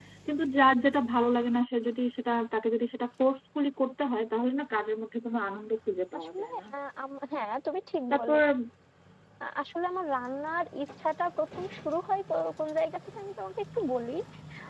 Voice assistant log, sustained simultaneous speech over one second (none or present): none